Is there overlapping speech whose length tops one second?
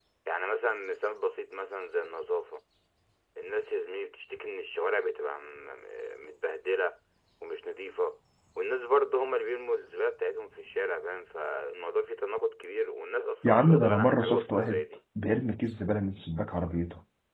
Yes, from 13.4 s

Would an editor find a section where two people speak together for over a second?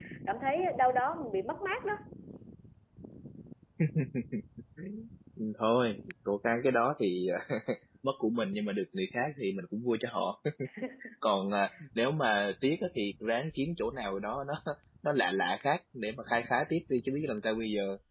No

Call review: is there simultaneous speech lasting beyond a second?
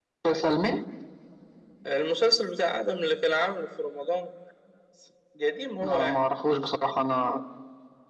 No

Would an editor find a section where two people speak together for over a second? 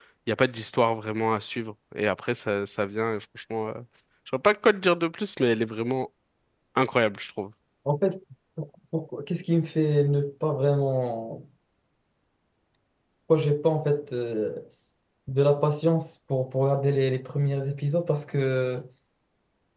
No

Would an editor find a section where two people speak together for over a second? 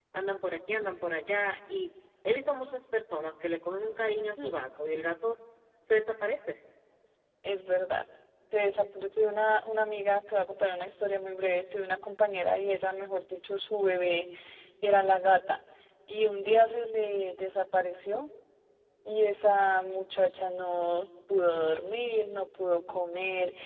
No

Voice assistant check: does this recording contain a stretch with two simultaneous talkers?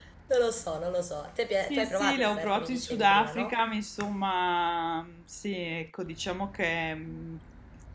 Yes, from 1.7 s

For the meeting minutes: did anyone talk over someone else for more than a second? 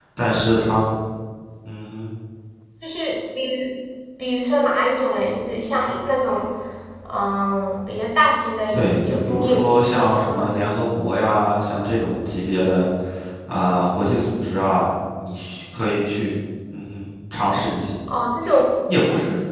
Yes, from 8.7 s

